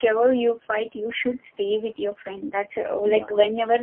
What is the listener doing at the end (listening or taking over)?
listening